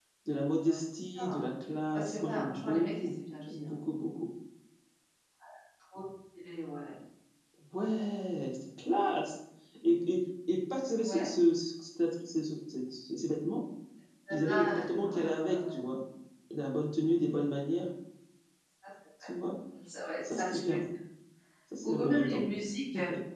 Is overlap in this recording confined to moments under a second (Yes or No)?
No